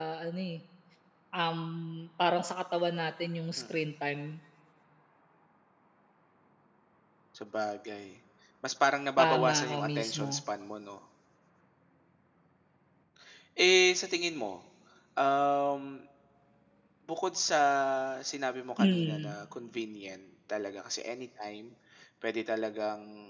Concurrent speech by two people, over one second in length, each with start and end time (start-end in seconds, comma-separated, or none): 9.2-10.4